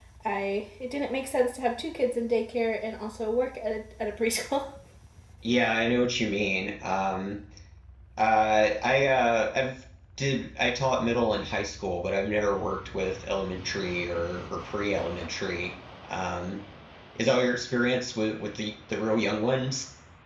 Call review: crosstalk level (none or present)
none